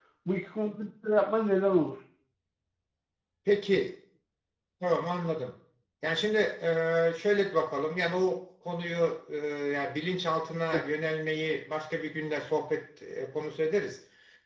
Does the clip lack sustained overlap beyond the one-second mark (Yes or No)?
Yes